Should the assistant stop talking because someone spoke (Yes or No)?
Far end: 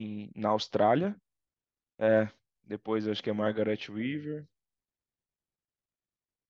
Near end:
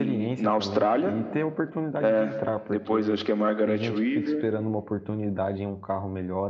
Yes